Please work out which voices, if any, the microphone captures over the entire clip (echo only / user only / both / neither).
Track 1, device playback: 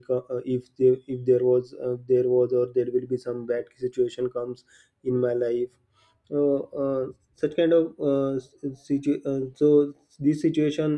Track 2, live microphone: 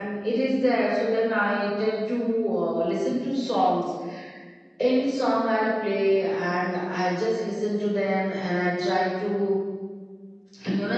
user only